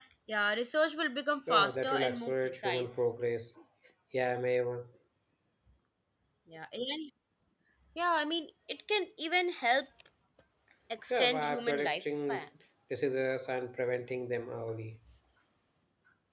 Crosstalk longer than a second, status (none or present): present